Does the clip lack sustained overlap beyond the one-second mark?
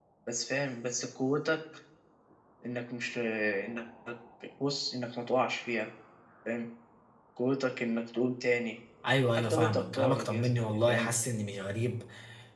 No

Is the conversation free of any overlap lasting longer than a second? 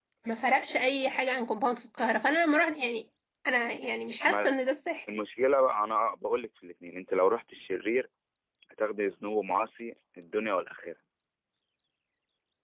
Yes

